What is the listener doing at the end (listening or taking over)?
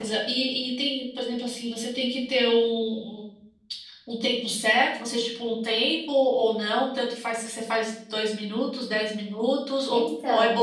listening